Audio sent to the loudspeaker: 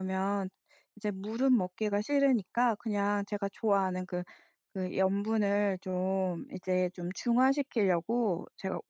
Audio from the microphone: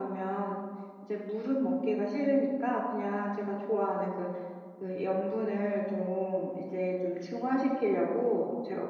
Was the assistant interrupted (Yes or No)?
No